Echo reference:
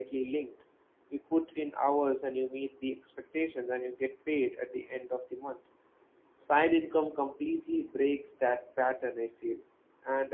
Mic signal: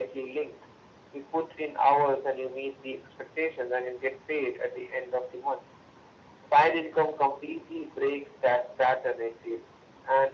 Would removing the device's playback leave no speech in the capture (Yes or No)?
Yes